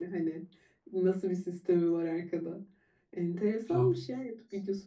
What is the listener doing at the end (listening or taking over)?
listening